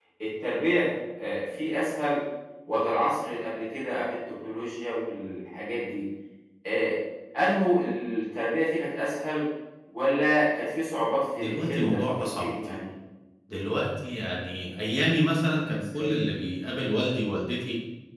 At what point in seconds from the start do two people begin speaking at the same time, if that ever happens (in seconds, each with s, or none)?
11.4 s